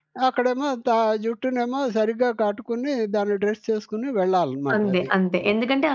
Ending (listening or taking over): taking over